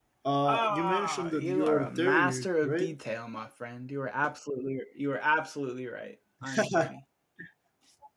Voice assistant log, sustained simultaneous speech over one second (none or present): present